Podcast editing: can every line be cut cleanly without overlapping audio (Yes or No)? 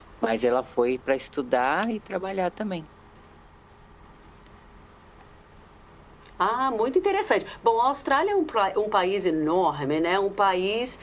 Yes